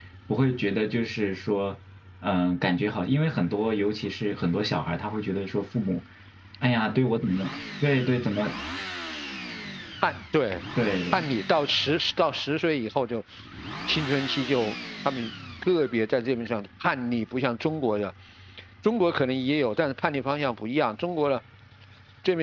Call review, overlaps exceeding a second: none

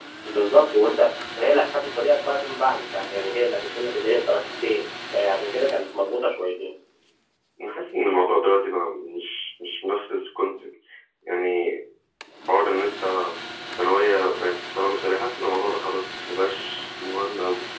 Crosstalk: none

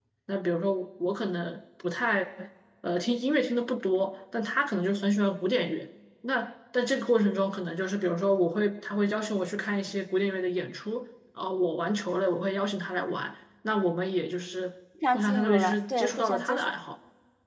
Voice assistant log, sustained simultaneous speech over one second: present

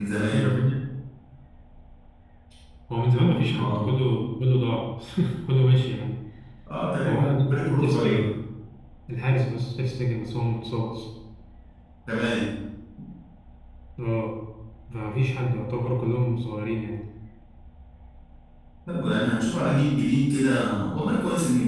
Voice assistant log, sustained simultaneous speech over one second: present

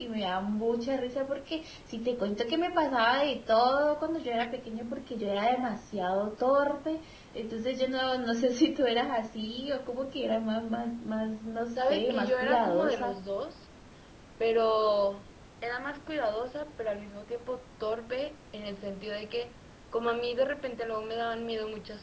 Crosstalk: present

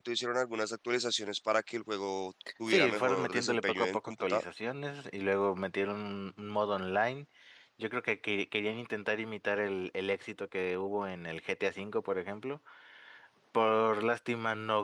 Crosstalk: present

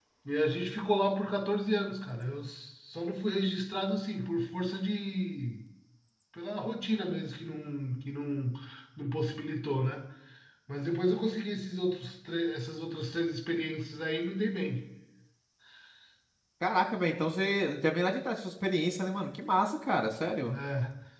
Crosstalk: none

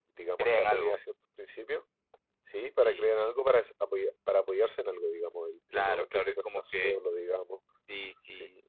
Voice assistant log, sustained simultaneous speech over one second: present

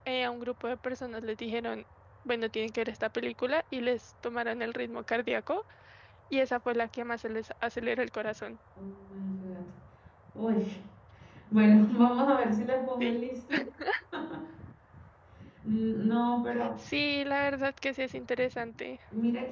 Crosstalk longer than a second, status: none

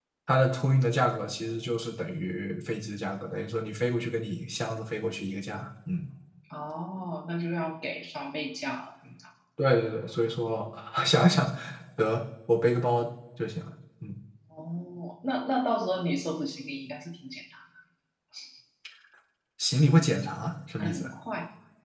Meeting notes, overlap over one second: none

